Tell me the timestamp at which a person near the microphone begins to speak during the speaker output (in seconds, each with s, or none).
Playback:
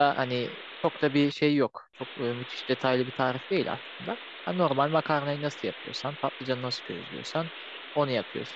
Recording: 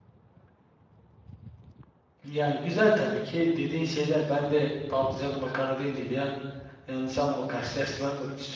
2.2 s